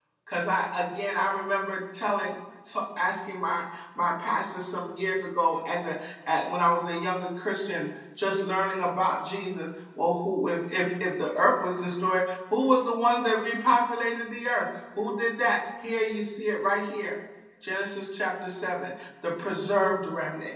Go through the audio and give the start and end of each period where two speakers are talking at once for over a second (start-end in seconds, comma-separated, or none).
none